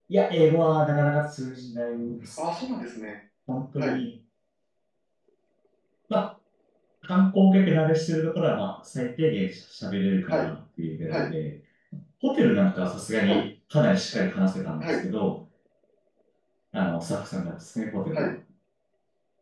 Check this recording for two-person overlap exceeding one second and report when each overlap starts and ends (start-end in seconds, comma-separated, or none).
none